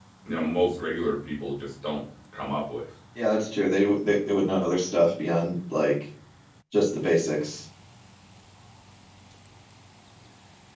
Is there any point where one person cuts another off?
No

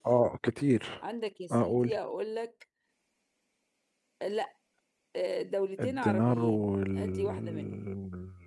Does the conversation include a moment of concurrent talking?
Yes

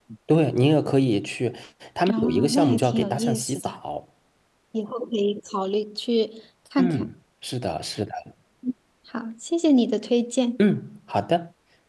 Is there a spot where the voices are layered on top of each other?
Yes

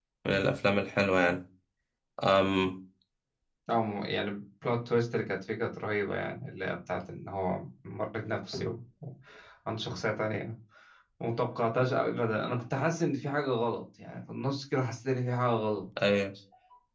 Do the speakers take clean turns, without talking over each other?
Yes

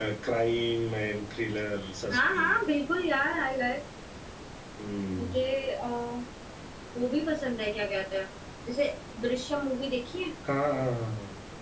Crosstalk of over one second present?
No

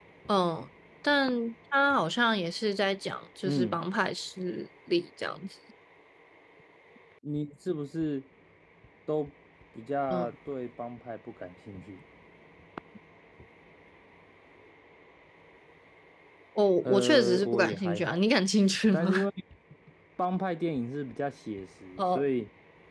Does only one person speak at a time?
No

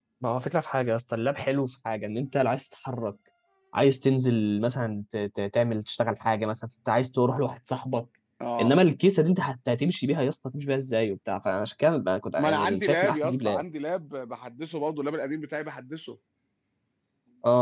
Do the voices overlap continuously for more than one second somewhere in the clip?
Yes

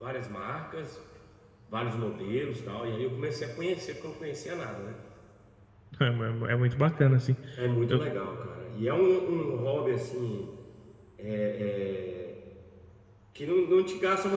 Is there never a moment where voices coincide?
Yes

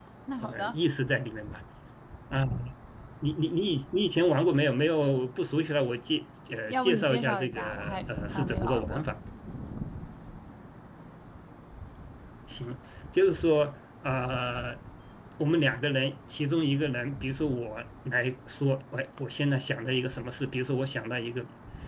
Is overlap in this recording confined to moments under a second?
No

